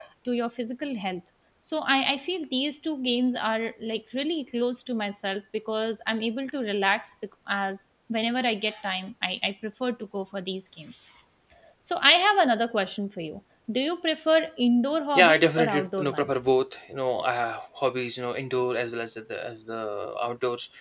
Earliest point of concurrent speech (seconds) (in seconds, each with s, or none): 15.2 s